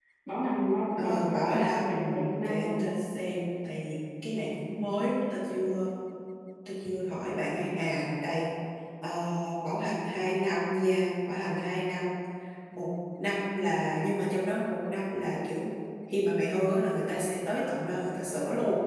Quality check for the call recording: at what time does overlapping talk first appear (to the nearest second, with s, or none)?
1 s